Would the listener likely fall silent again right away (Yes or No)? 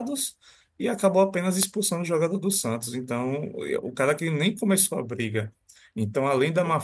Yes